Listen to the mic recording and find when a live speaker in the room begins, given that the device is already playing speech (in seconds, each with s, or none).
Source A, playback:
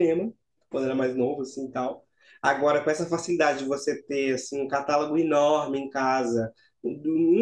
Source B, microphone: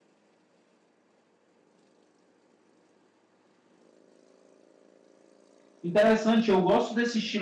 5.8 s